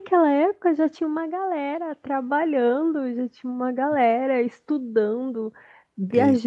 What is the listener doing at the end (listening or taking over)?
listening